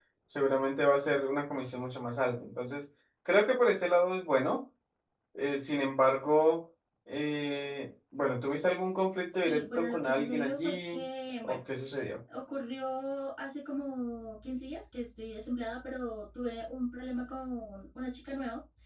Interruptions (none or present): present